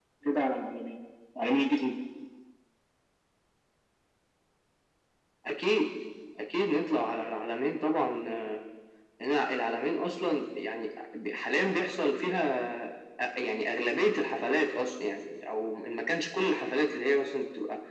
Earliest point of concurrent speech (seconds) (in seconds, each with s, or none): none